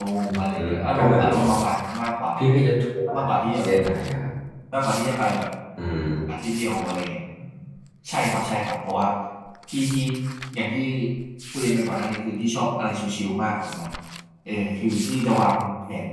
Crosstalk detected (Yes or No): Yes